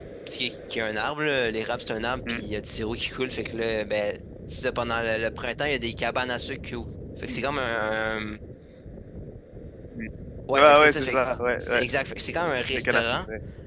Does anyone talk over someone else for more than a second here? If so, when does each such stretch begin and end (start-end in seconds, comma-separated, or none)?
10.5-11.8